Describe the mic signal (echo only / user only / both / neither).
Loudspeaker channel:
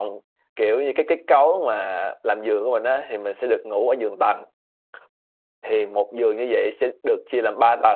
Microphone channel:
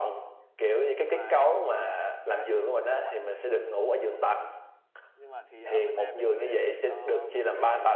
both